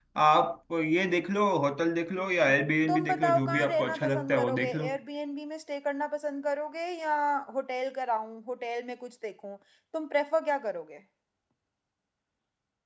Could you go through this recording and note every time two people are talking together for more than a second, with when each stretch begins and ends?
2.9-4.9

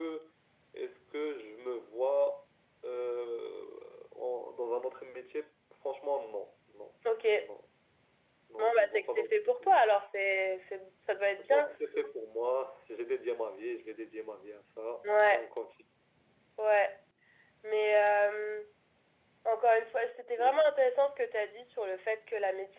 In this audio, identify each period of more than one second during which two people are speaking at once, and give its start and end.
8.6-9.8

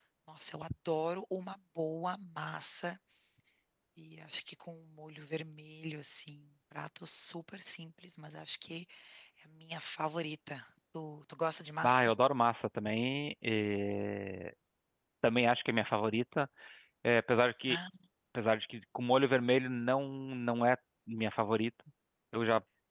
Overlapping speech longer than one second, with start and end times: none

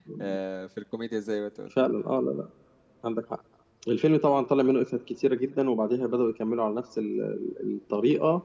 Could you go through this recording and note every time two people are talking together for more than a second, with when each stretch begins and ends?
none

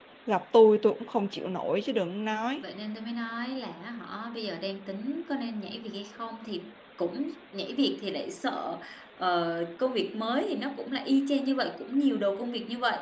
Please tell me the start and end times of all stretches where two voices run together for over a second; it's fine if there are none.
none

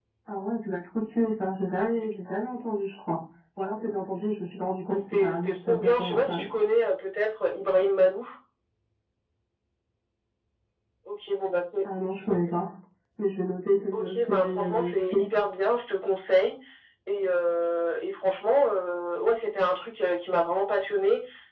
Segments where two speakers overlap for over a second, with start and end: 4.9-6.5, 13.9-15.3

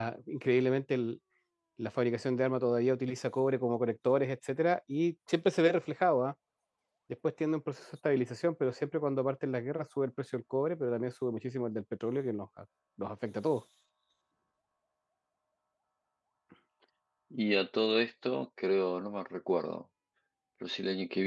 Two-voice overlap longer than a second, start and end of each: none

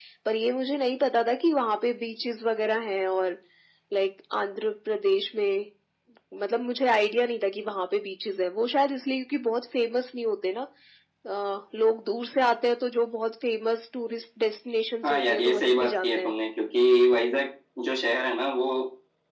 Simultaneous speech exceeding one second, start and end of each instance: 15.0-16.3

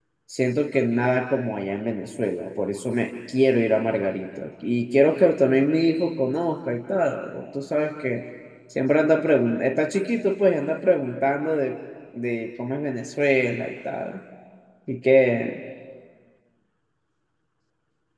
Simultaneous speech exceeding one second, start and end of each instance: none

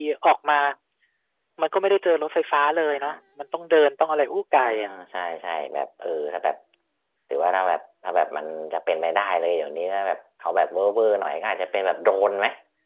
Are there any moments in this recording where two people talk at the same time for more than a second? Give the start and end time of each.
none

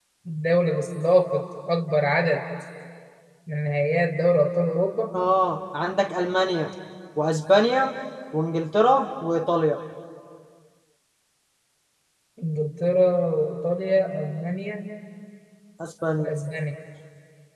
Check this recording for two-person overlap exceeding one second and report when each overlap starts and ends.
none

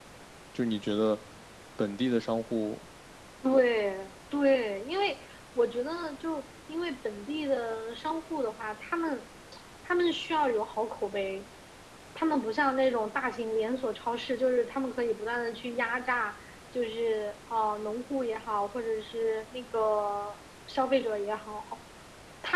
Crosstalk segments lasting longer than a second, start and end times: none

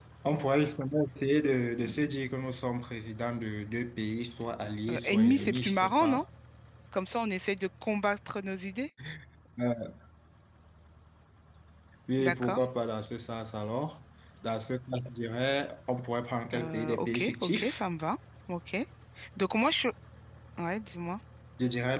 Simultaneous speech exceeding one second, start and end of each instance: 4.9-6.2, 16.5-17.8

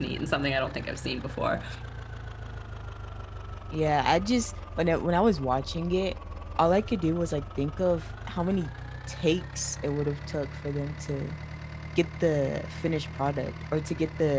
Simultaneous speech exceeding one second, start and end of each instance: none

